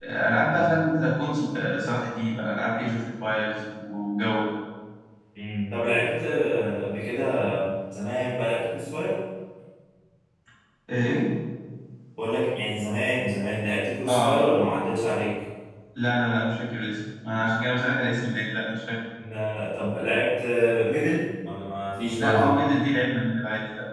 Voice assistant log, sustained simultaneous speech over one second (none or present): none